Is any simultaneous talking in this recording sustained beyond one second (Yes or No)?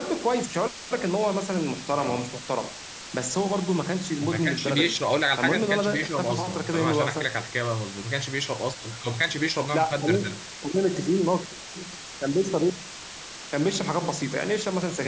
Yes